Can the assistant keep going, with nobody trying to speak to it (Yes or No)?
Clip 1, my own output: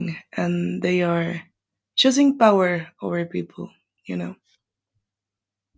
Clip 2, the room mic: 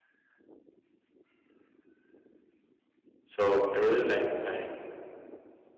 No